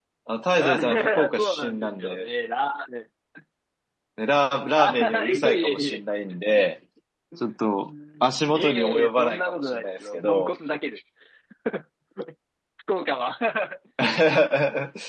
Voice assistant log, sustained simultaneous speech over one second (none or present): present